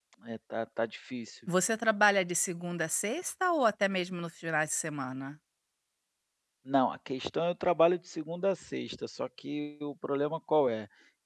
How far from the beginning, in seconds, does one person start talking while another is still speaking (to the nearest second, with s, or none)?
none